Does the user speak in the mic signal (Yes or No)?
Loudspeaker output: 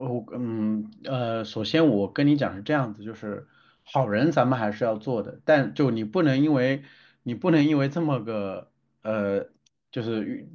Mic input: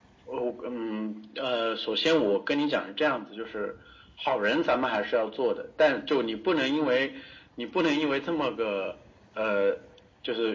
No